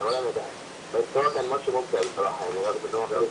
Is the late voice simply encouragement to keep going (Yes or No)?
No